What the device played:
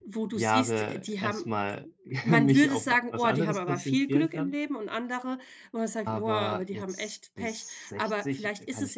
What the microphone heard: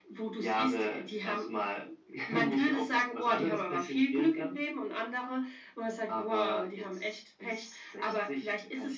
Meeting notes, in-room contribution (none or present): none